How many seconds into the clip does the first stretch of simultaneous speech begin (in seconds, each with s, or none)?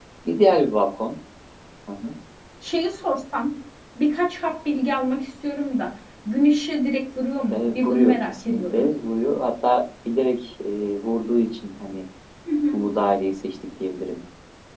7.5 s